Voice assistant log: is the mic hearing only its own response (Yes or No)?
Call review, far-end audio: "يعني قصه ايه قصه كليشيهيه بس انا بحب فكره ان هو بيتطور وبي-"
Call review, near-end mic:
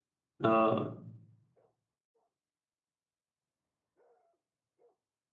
No